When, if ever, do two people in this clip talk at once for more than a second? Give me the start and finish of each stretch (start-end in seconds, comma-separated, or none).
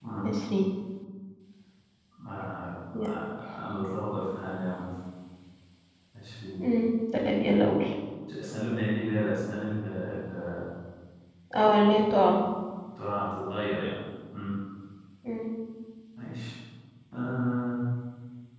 none